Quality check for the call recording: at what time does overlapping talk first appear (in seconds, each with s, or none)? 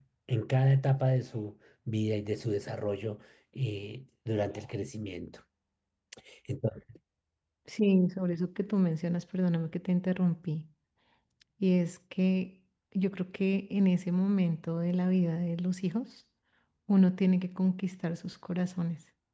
none